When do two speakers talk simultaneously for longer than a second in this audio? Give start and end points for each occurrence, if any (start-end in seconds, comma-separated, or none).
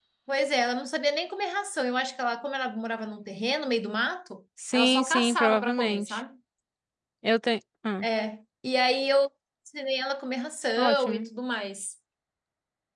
4.7-6.2